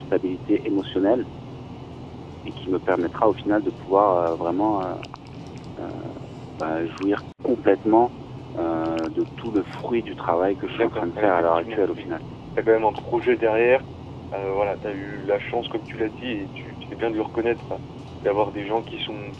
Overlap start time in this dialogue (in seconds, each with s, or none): 10.7 s